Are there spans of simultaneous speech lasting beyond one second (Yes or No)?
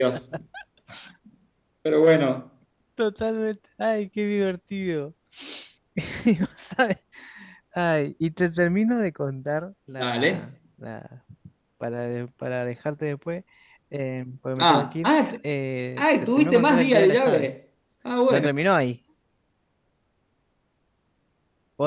Yes